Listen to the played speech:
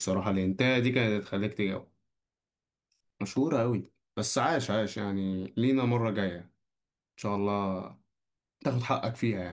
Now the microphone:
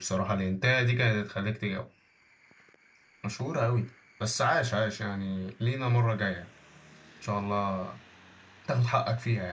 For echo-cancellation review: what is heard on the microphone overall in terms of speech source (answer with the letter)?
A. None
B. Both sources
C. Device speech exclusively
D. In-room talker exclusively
C